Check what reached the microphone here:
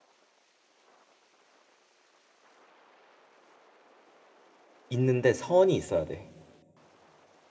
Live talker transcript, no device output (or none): 있는데 선이 있어야 돼.